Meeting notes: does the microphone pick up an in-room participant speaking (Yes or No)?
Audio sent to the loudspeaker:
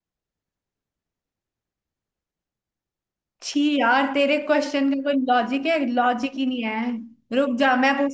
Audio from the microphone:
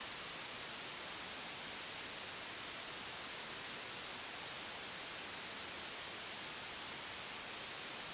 No